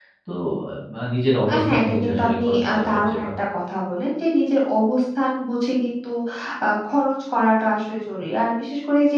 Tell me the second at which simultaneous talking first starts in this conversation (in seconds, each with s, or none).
1.5 s